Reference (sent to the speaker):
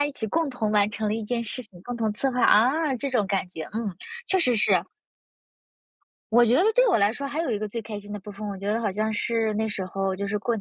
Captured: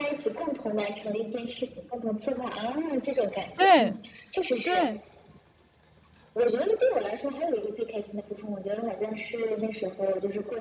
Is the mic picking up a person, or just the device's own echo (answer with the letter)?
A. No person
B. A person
B